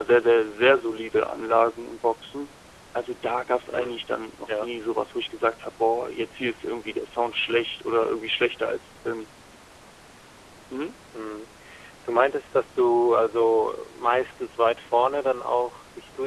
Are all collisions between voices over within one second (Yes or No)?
Yes